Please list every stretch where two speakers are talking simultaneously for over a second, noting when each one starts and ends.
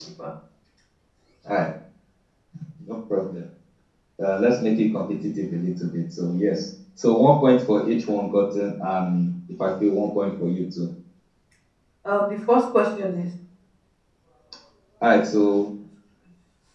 none

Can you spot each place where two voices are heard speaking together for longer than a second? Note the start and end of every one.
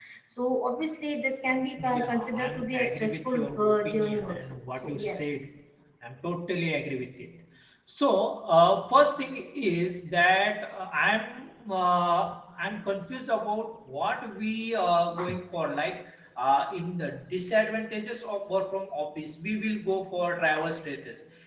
1.8-5.3

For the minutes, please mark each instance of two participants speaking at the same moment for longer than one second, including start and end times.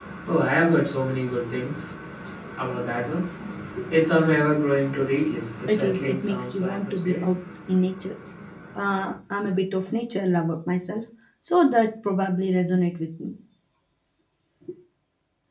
5.7-7.2

